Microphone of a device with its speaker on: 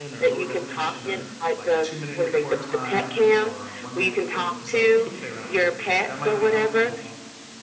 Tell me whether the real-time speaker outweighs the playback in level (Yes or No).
No